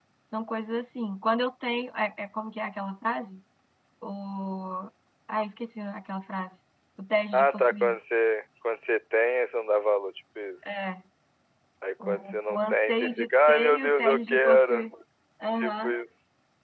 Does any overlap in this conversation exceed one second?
Yes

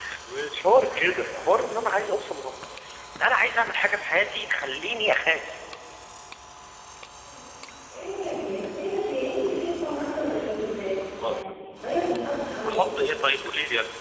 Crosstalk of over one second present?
No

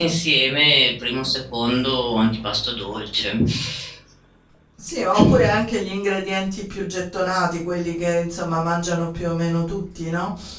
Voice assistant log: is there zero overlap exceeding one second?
Yes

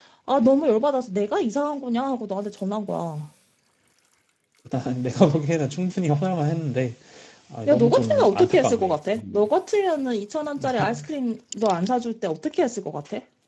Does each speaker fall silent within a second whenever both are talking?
No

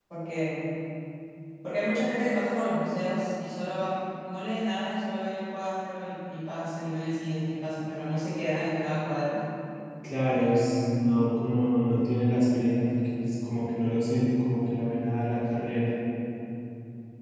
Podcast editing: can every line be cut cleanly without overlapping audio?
Yes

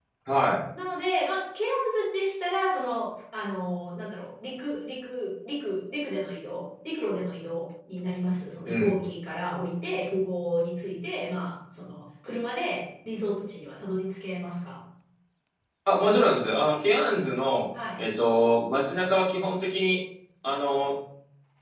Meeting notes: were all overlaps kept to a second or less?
Yes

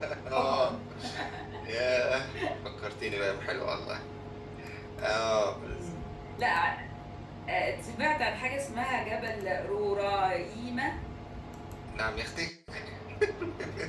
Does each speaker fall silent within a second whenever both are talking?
Yes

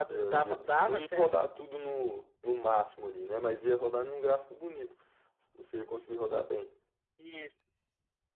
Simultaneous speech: Yes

